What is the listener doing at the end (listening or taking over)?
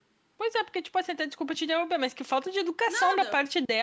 listening